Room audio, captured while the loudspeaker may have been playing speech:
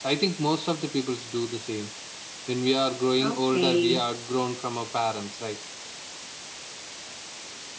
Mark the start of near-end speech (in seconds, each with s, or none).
3.2 s